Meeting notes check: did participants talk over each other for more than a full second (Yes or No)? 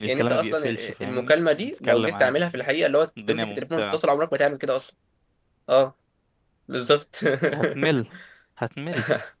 Yes